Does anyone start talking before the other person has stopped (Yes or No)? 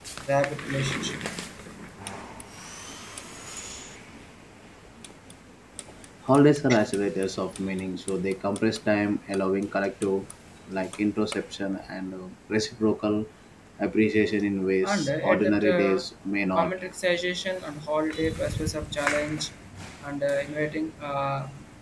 Yes